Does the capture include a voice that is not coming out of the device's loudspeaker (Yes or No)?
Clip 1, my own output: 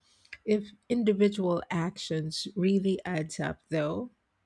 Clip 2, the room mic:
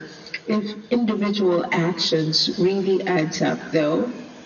No